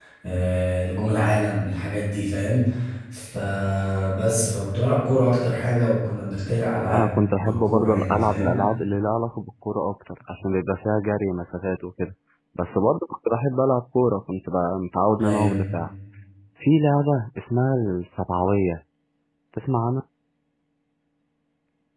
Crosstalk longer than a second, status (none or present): present